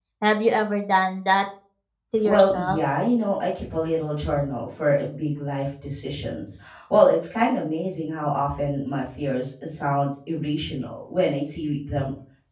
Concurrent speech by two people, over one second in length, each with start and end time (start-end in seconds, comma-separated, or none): none